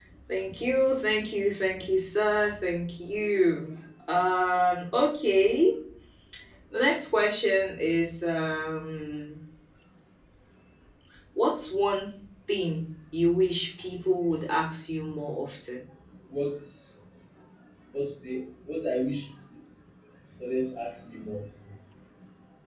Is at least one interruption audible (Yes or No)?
No